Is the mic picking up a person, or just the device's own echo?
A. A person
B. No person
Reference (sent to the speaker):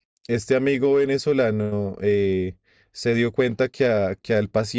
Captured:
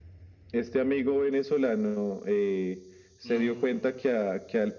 A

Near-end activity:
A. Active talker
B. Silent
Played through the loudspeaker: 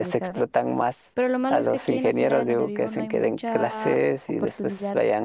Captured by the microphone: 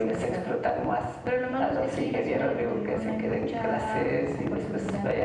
B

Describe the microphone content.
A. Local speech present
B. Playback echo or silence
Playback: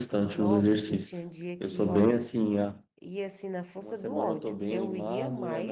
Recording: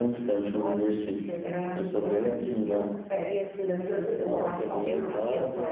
A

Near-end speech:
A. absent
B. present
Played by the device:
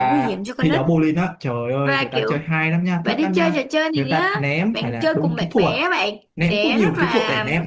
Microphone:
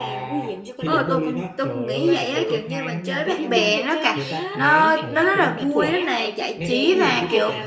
B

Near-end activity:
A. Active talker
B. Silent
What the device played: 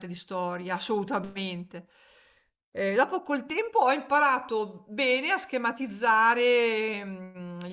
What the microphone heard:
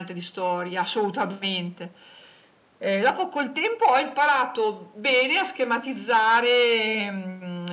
B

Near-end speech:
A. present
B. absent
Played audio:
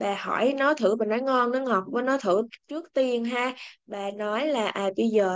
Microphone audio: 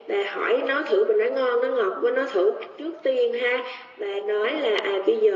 B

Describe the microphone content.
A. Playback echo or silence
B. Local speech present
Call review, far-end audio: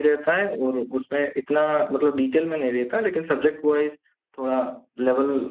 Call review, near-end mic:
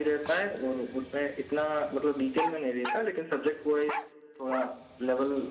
A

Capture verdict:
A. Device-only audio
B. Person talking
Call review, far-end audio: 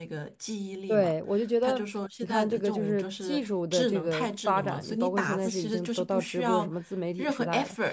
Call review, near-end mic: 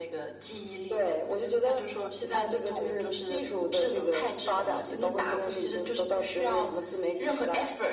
A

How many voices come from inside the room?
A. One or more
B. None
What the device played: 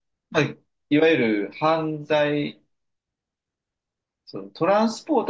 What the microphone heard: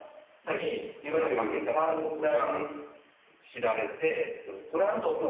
A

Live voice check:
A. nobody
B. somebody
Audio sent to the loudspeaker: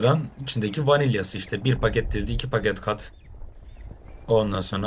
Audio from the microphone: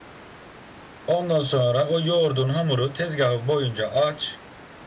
B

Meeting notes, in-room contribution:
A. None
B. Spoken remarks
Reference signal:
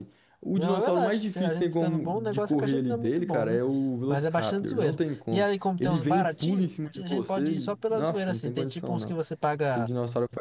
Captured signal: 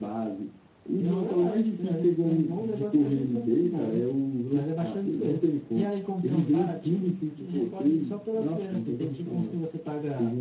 A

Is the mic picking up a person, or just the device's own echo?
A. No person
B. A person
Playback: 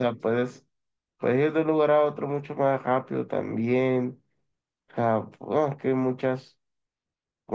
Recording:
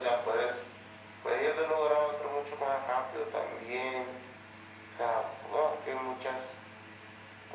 A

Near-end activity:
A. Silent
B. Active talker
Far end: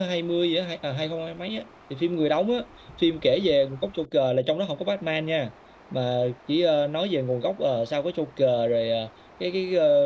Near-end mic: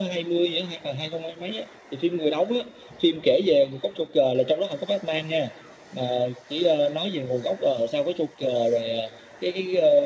A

